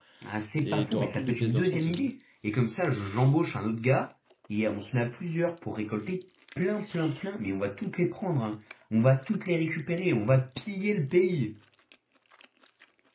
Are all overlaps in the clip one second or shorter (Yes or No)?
No